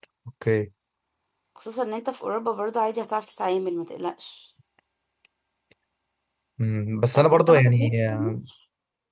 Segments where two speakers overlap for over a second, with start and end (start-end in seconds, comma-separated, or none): 7.1-8.4